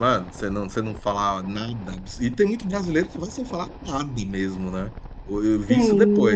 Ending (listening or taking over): listening